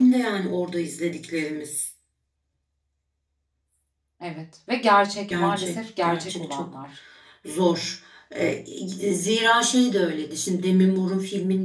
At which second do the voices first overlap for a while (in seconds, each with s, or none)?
5.3 s